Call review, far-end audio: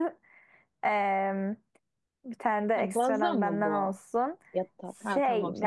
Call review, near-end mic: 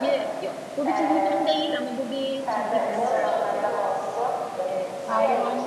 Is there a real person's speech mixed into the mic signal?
Yes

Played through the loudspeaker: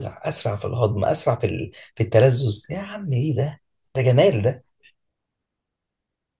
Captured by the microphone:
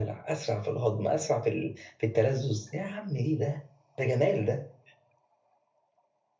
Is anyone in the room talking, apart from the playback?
No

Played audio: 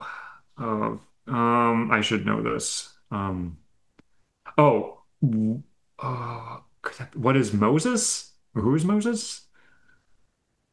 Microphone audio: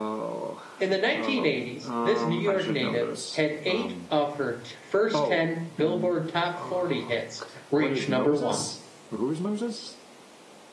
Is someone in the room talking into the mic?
Yes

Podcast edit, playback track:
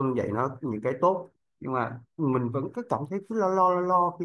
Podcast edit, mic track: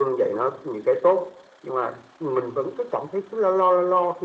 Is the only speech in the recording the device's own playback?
Yes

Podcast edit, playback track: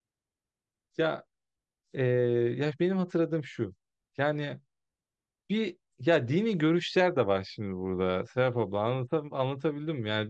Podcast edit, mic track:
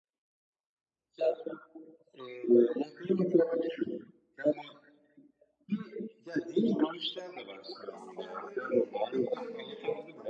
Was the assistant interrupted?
Yes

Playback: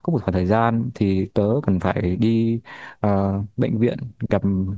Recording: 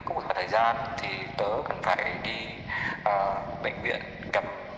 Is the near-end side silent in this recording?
Yes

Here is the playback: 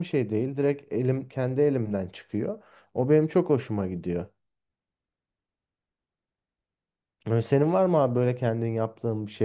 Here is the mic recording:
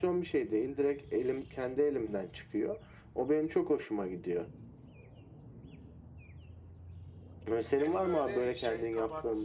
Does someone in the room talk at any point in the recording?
Yes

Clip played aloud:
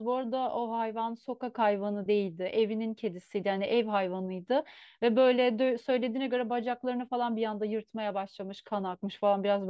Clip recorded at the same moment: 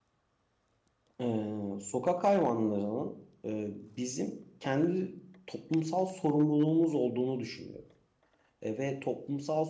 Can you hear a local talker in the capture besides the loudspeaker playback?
Yes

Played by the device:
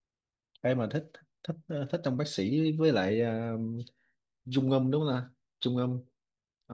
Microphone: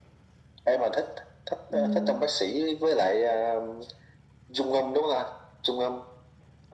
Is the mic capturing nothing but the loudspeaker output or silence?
No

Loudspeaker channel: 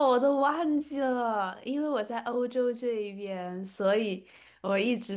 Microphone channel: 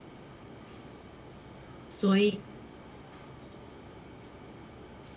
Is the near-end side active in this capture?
Yes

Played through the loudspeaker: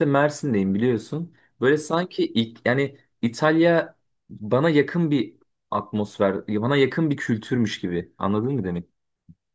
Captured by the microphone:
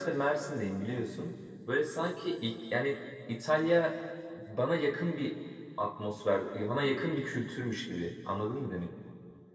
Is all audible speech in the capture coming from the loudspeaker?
Yes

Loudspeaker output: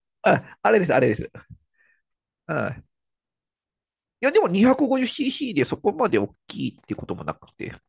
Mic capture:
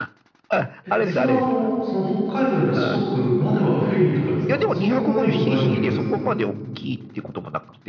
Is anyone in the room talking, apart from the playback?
Yes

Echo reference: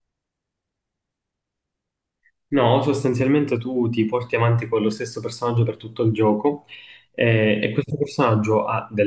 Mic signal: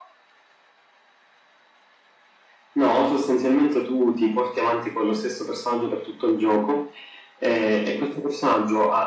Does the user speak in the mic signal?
No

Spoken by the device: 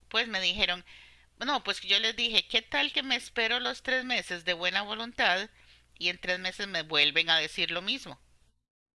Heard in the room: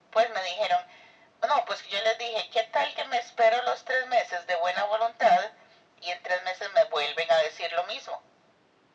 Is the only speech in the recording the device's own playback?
Yes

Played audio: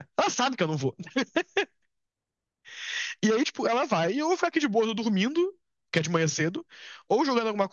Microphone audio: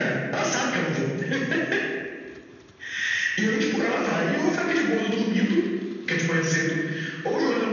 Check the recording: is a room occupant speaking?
No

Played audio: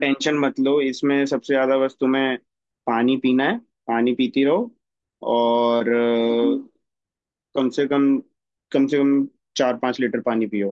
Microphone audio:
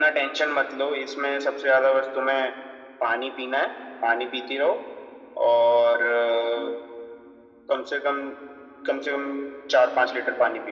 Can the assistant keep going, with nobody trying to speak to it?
Yes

